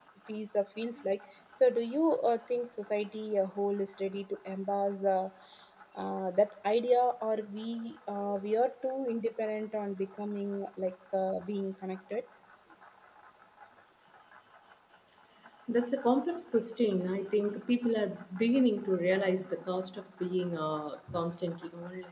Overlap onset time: none

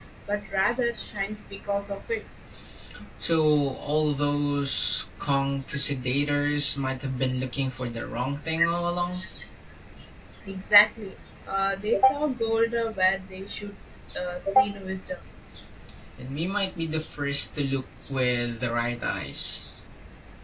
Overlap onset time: none

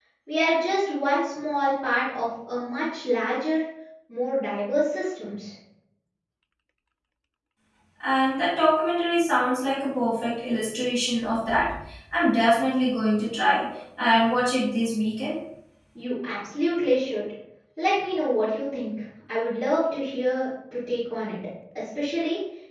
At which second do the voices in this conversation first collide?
none

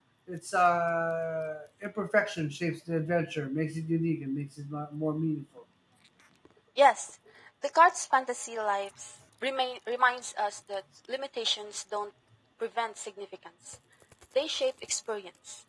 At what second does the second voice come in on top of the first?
none

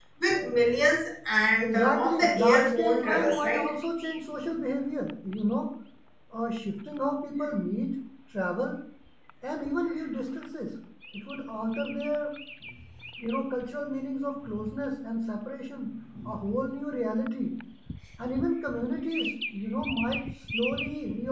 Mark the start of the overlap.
2 s

